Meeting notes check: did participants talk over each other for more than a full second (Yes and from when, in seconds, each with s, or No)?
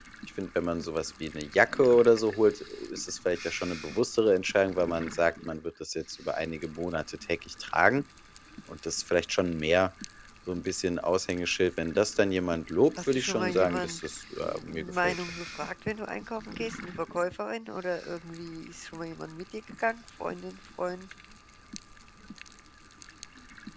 Yes, from 13.0 s